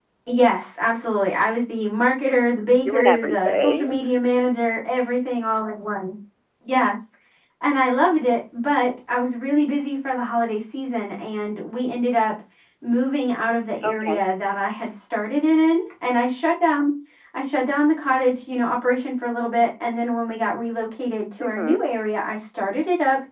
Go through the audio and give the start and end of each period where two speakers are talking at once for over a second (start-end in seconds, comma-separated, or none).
2.8-4.2